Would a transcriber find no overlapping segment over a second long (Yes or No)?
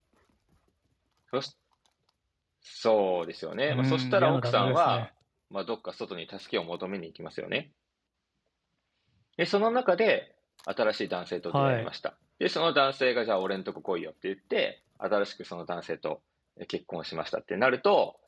No